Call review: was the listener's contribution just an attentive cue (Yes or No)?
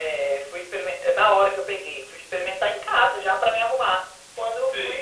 No